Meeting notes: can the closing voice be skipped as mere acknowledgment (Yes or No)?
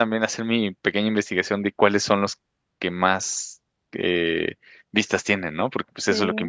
No